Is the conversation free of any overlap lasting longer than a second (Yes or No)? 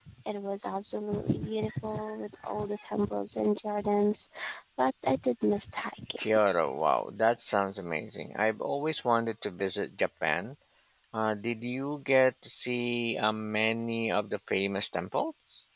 Yes